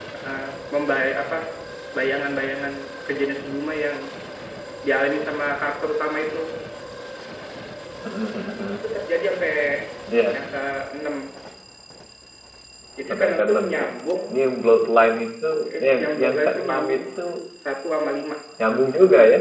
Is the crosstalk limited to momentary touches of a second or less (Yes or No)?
No